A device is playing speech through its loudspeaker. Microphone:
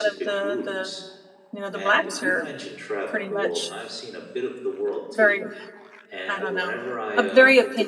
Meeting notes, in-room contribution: present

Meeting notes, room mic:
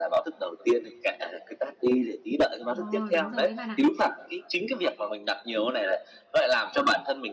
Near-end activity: present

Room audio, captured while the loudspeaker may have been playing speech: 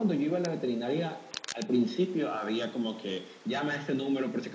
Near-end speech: none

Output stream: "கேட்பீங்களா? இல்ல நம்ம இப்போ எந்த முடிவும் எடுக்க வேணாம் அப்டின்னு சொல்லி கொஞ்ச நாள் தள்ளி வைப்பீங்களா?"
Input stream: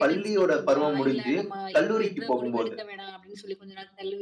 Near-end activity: present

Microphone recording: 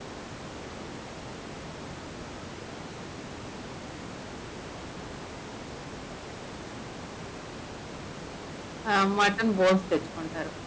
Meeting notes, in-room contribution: present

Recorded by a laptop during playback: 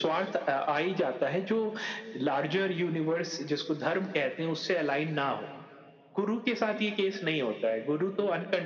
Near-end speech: none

